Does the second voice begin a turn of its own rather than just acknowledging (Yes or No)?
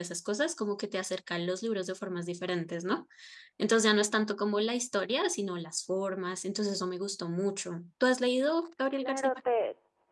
Yes